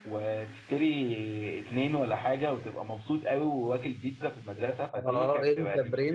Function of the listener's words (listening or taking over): taking over